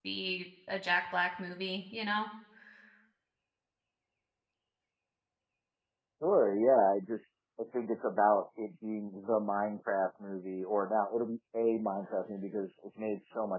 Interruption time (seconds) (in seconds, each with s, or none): none